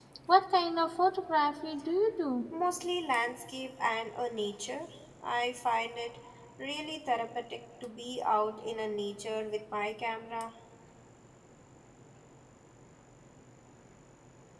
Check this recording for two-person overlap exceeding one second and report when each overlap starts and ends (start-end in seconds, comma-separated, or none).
none